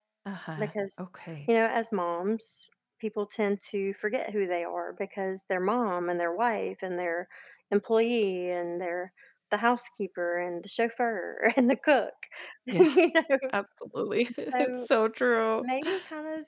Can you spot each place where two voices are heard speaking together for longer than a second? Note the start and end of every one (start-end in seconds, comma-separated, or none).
none